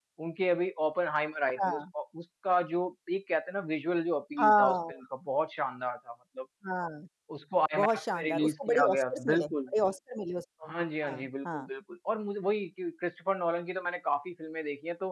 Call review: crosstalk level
present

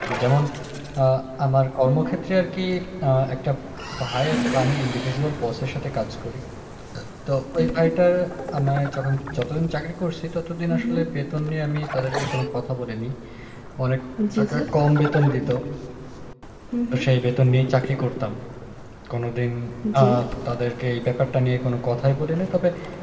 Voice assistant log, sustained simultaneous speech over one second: none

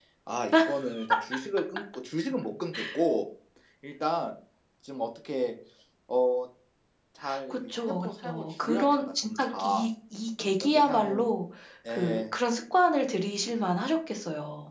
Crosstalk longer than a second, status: present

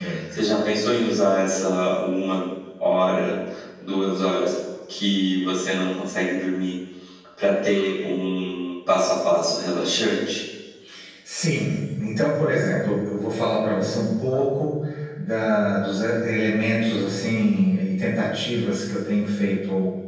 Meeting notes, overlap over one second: none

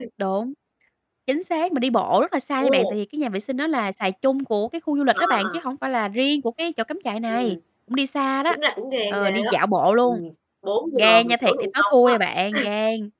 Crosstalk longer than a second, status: present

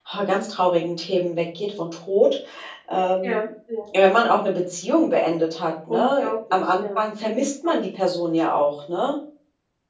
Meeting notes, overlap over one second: present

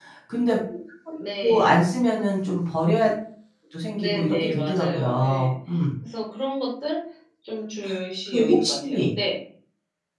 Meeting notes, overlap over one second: present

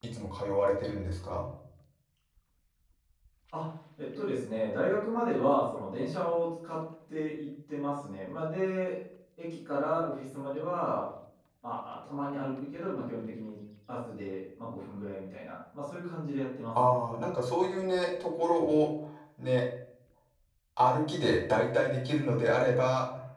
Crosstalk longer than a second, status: none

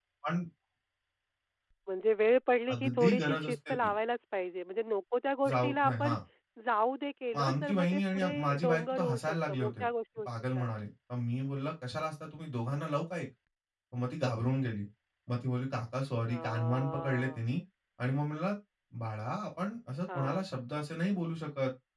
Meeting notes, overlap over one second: present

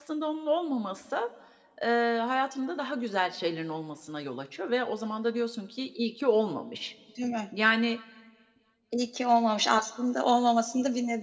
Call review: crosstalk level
none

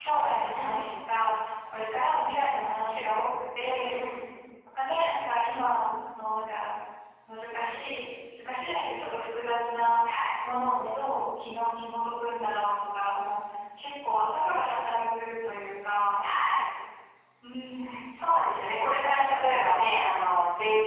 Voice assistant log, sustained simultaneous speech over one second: none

